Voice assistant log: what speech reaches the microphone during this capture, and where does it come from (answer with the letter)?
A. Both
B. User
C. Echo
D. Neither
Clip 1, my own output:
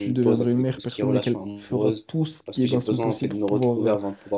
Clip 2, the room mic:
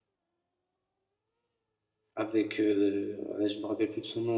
B